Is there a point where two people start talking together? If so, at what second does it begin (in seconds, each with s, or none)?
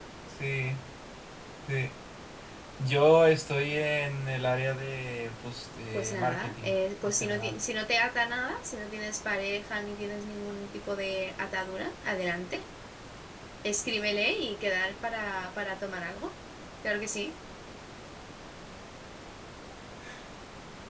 5.9 s